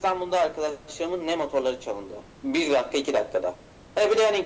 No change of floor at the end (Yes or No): Yes